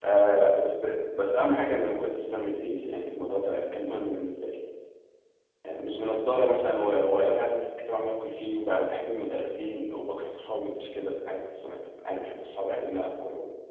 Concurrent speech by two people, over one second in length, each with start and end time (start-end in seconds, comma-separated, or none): none